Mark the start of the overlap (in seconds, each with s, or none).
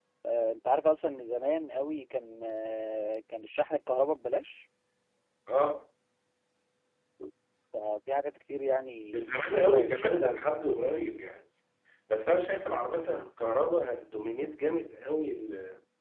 9.1 s